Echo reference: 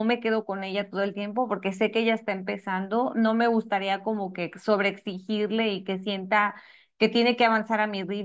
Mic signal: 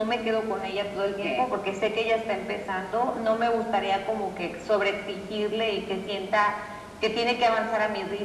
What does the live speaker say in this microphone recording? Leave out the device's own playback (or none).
¿Qué?